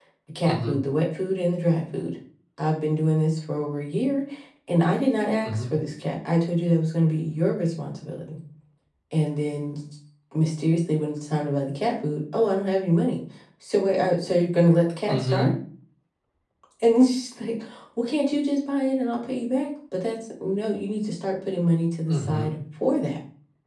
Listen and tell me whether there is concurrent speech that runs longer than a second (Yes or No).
No